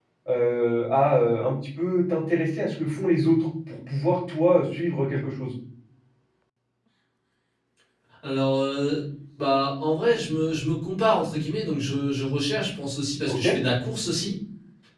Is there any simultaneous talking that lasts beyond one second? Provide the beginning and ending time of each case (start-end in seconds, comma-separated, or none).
none